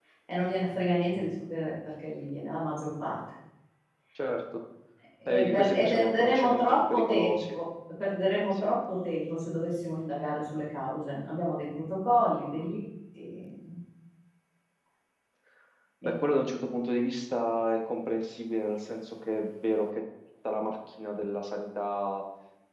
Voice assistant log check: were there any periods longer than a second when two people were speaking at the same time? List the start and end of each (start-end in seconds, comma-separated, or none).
5.3-7.6